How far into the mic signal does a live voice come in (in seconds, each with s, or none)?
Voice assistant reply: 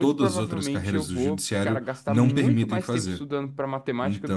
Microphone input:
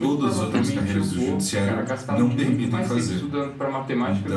0.5 s